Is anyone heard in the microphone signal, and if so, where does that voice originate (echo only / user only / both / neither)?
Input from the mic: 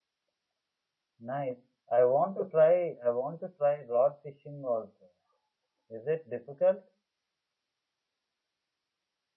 user only